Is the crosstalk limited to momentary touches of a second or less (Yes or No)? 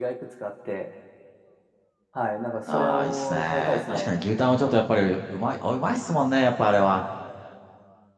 No